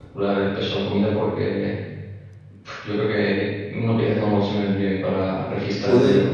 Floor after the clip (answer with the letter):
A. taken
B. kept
A